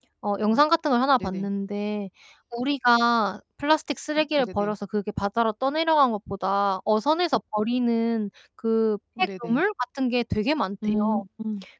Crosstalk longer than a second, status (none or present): none